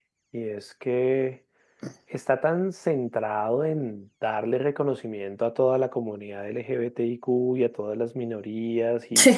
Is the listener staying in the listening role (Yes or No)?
Yes